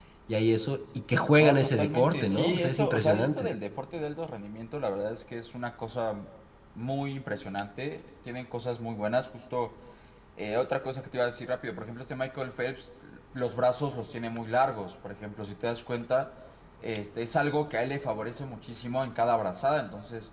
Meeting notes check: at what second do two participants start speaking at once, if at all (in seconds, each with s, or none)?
1.4 s